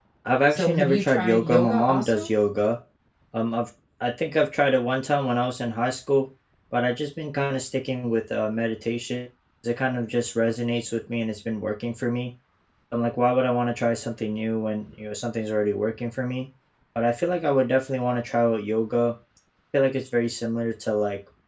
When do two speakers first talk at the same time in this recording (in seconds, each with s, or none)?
0.5 s